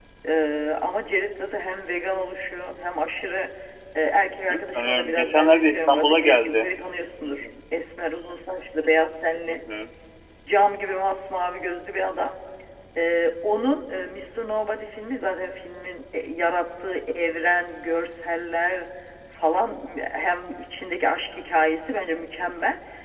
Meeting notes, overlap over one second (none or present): present